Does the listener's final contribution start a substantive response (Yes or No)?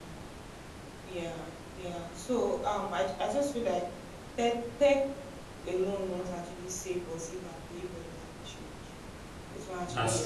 No